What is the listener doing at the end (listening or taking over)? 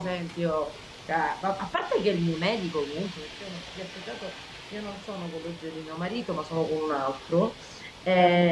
listening